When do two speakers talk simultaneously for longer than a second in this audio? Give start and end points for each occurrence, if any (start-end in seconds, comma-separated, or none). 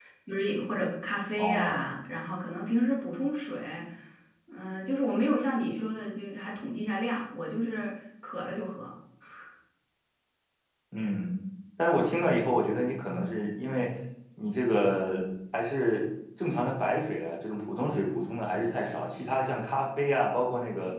none